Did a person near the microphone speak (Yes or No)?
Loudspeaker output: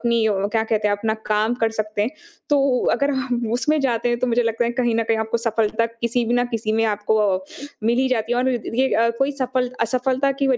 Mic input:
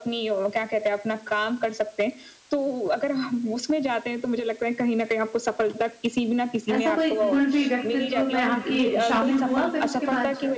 Yes